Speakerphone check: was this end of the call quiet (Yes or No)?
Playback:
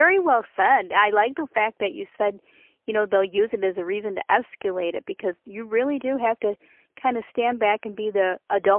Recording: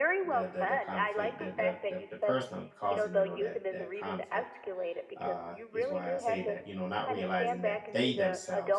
No